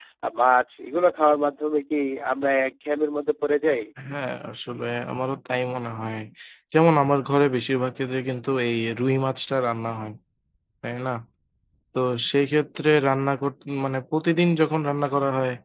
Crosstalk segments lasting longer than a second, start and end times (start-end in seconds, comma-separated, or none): none